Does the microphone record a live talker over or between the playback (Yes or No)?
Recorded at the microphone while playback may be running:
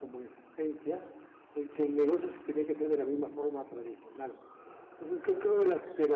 No